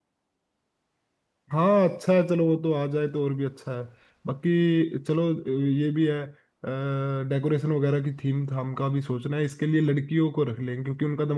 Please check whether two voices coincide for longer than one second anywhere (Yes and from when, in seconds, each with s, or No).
No